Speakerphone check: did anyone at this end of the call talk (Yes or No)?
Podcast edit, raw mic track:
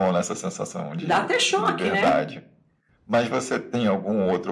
Yes